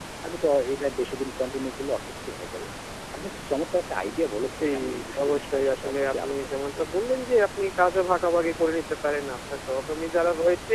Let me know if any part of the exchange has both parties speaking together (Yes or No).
Yes